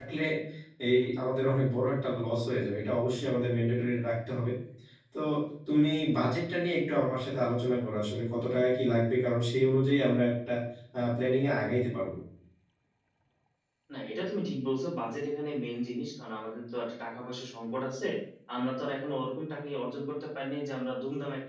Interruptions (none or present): none